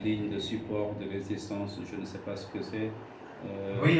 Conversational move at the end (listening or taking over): taking over